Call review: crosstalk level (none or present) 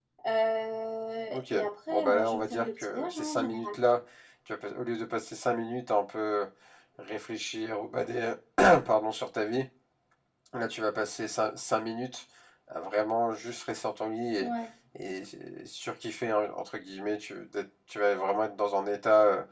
present